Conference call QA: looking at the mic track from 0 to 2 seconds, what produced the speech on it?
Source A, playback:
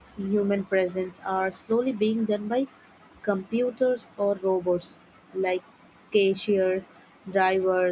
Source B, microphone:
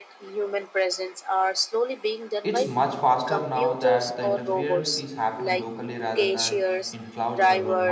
echo only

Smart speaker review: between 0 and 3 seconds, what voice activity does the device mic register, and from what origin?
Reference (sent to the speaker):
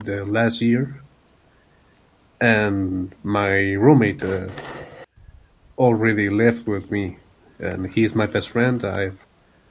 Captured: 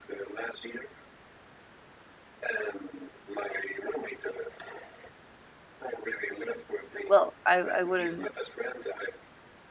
echo only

